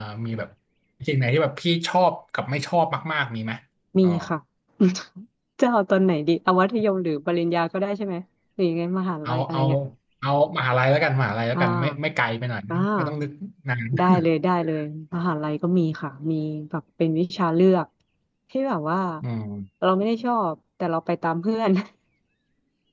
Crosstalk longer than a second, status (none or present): none